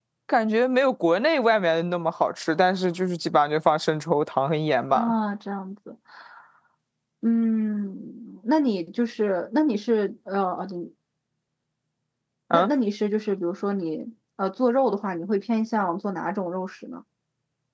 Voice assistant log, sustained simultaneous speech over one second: none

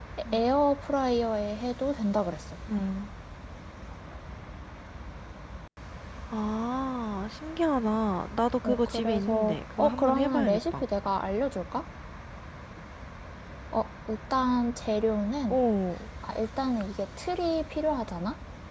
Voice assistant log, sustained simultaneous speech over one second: present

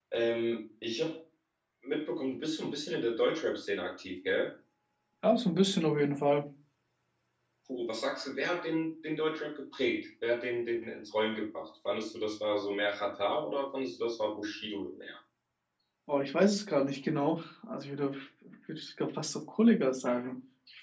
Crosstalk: none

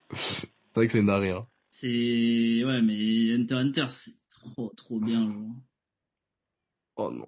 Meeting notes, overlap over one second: none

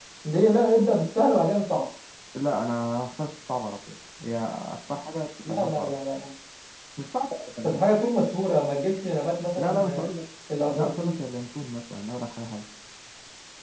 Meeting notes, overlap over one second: none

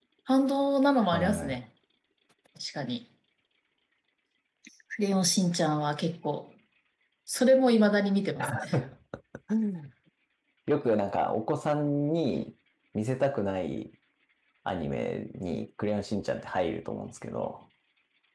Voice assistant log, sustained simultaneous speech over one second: none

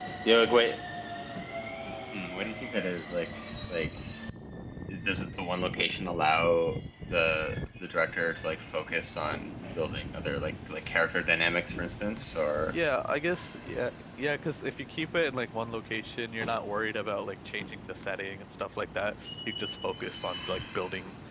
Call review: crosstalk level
none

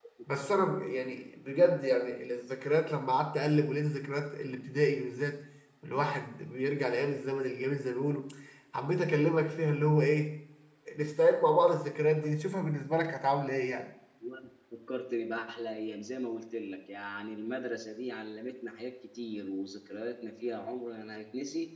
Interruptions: none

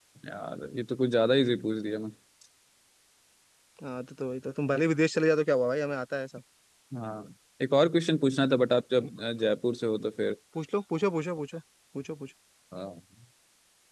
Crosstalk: none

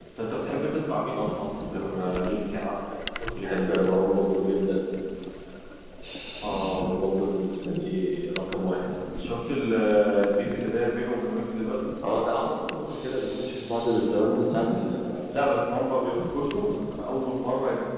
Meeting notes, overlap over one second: none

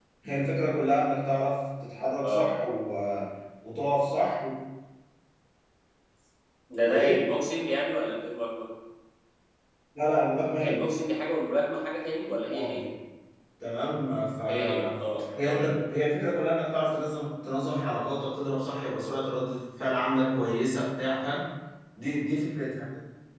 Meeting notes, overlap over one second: none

